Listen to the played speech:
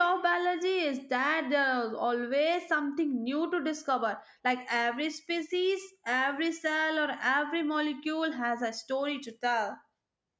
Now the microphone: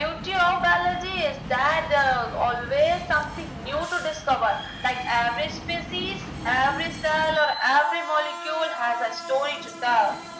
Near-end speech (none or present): none